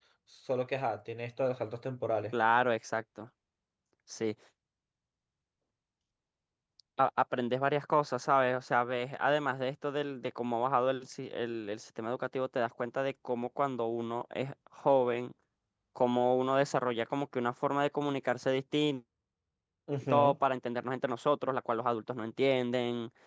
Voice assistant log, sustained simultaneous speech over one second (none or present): none